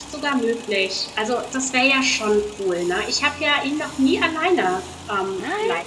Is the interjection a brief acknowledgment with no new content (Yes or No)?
Yes